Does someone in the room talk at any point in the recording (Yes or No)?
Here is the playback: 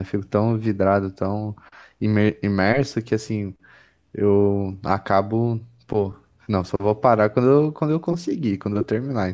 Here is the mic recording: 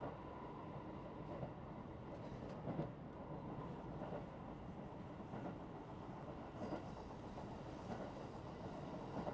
No